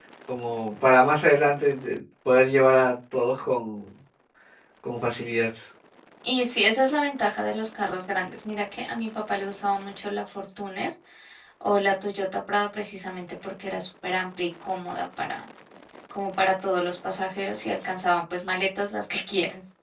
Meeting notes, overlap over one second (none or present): none